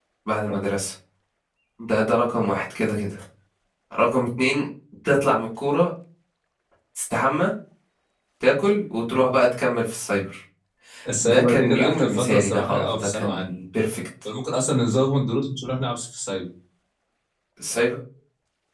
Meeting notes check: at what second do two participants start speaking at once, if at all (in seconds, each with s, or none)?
11.2 s